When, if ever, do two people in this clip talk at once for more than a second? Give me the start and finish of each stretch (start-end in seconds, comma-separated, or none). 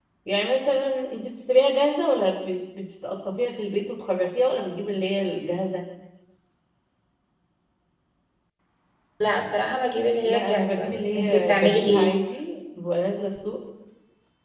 10.2-12.2